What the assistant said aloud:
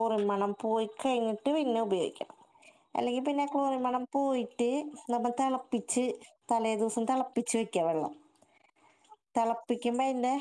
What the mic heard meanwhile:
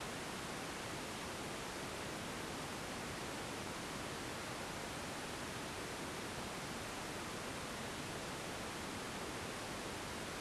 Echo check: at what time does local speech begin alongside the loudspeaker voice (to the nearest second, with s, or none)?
none